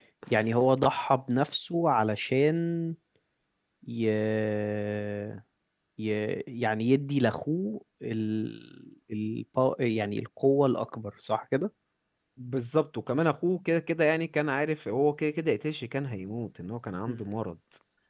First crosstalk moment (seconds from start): none

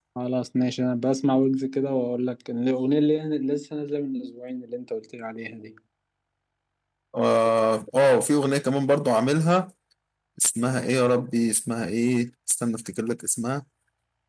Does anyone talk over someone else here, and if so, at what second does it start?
none

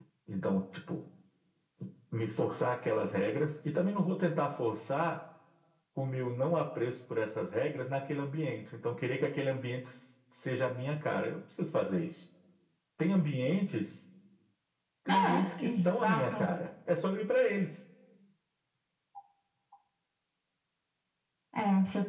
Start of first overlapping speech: 15.1 s

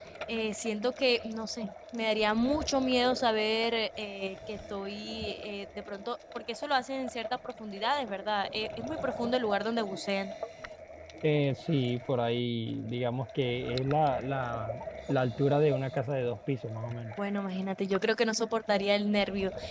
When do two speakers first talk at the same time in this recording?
none

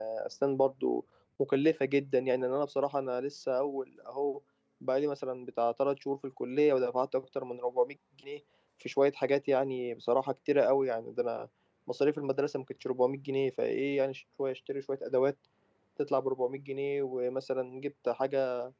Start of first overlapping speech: none

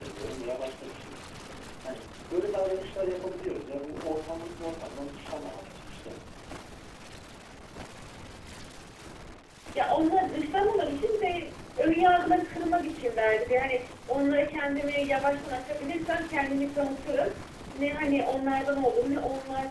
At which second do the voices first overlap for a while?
none

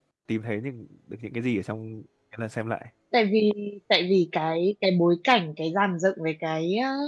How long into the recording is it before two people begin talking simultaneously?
none

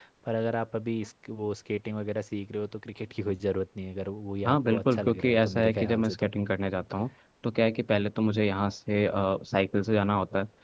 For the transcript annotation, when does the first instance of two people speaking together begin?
4.4 s

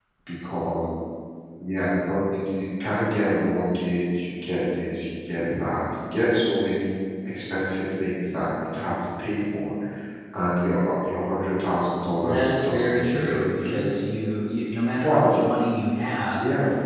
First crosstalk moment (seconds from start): 12.2 s

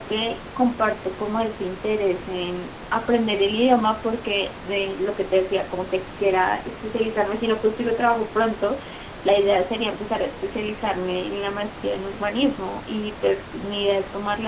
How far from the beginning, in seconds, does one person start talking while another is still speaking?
none

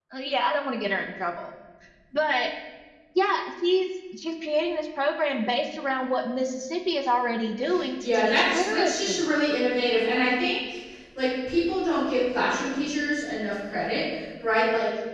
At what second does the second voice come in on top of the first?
8.0 s

